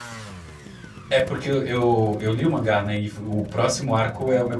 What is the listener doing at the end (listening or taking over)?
listening